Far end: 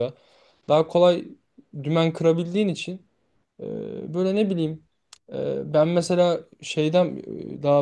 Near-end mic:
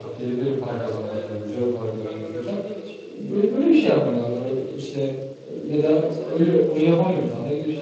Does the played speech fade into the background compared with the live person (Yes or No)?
Yes